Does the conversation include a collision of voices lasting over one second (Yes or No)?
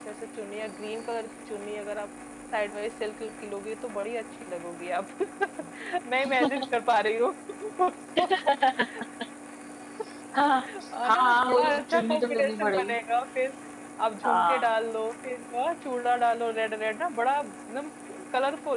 Yes